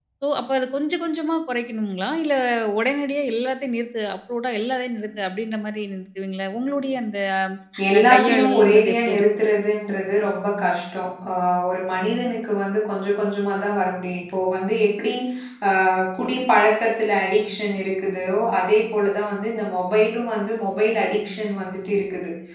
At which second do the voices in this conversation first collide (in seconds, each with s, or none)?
8.0 s